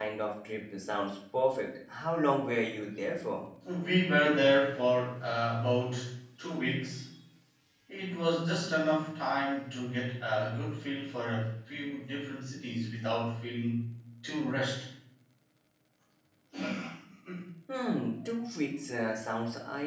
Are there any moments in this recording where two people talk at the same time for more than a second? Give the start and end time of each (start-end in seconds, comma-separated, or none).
none